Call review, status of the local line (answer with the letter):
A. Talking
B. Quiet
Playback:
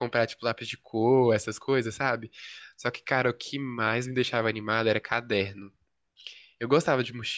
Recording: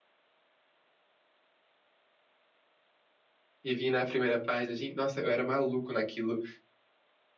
A